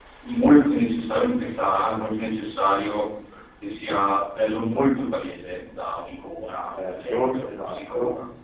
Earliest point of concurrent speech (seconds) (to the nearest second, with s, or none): 7 s